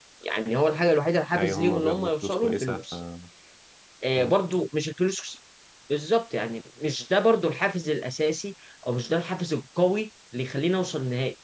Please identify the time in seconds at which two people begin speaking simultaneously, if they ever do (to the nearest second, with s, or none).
1 s